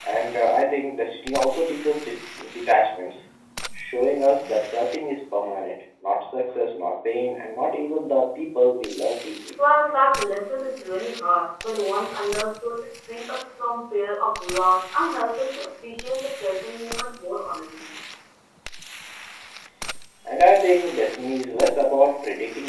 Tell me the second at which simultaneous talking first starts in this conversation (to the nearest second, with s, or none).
none